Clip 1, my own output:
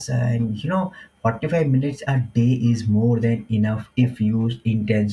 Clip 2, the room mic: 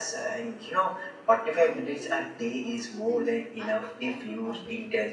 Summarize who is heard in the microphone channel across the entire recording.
both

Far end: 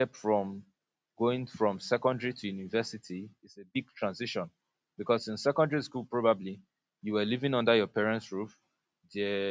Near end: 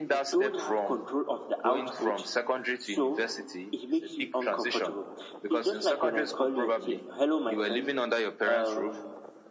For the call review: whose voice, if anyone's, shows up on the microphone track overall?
both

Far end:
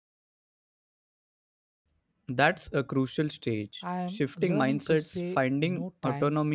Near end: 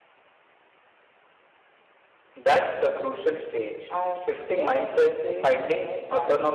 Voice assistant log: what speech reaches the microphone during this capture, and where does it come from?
echo only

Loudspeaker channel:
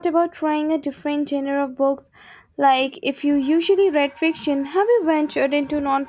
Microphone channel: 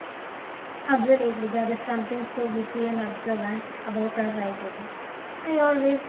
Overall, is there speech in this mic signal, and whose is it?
user only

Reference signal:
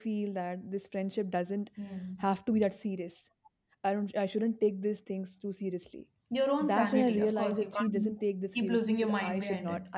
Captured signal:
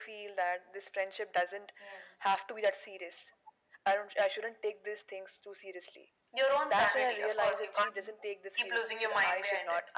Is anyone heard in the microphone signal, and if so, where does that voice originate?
echo only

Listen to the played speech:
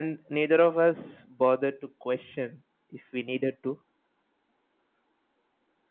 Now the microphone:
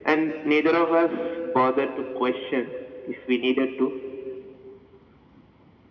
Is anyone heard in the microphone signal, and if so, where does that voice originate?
echo only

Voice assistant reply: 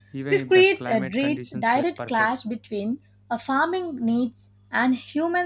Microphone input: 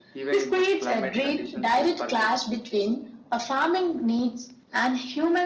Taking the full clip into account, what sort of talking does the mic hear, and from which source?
echo only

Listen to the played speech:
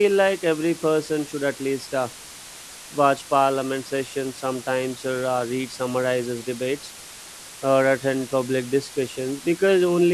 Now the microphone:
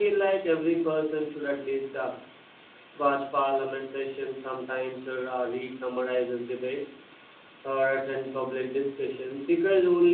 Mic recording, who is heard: echo only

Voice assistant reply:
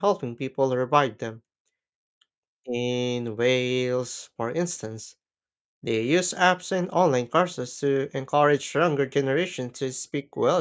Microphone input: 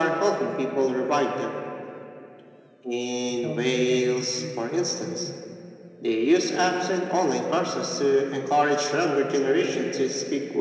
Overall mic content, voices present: both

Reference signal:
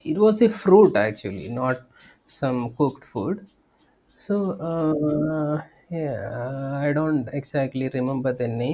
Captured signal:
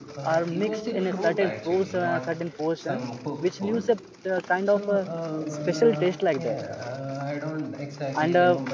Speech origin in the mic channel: both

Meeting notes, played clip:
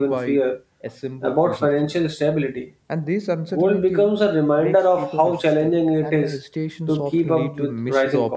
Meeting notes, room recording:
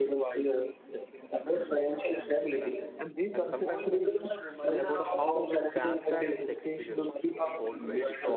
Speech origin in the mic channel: both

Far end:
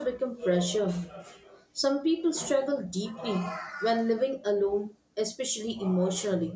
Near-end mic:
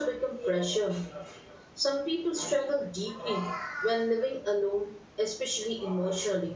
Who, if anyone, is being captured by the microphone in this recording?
echo only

